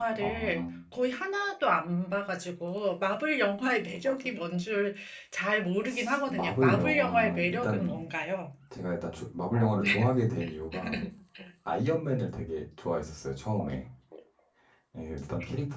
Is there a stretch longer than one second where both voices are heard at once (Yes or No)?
Yes